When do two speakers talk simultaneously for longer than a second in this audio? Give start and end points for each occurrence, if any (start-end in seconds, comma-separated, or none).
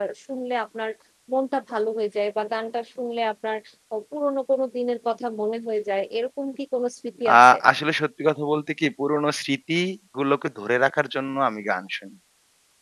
none